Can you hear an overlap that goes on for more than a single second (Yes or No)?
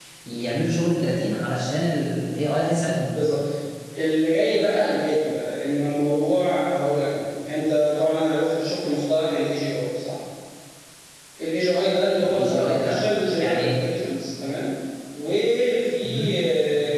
Yes